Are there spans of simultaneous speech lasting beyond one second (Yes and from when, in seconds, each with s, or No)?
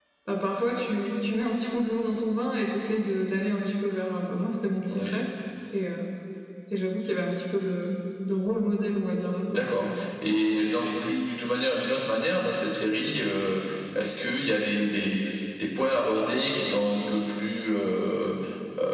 No